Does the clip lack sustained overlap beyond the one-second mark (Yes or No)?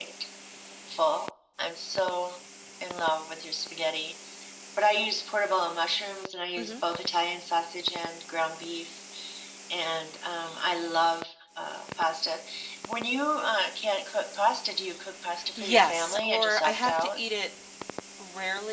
No